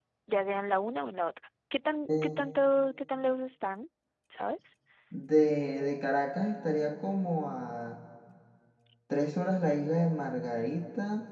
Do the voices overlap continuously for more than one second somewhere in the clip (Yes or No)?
No